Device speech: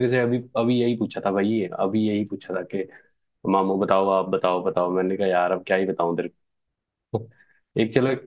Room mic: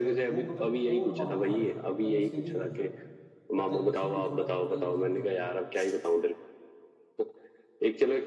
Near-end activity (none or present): present